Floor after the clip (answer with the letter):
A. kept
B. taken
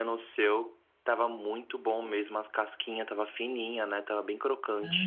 B